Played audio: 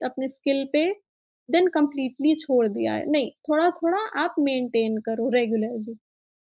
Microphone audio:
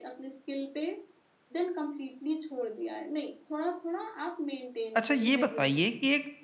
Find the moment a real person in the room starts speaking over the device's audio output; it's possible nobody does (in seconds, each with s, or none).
4.9 s